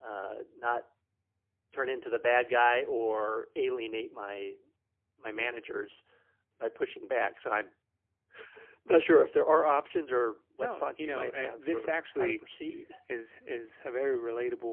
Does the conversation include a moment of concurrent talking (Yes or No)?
Yes